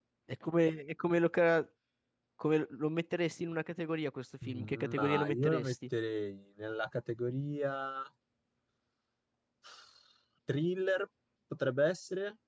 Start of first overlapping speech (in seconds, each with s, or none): 4.4 s